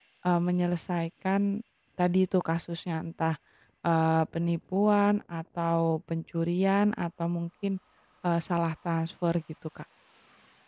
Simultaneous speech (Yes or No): No